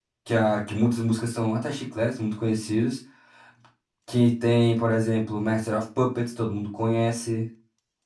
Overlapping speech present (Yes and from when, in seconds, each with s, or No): No